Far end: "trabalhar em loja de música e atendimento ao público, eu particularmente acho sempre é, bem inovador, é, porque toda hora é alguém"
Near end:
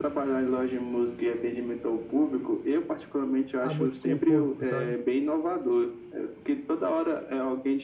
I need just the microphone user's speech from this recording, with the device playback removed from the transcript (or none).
a muito com o público, sabe?